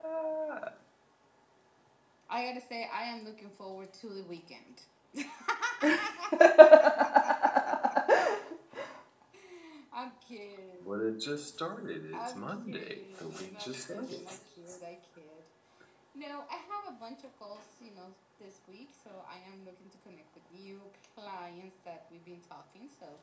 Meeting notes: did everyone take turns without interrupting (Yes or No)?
No